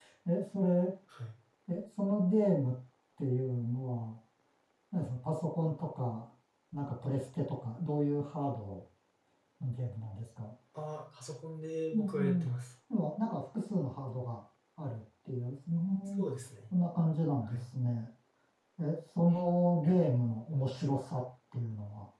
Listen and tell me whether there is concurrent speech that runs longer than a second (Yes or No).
No